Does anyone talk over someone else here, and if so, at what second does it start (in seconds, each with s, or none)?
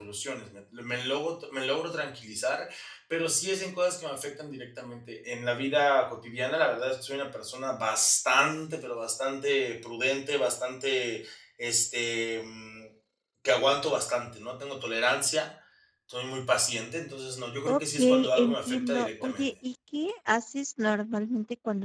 17.7 s